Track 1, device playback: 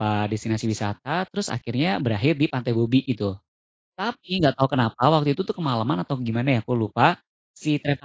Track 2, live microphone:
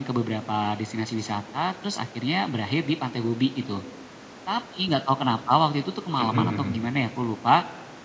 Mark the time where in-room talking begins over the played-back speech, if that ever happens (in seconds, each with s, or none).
6.2 s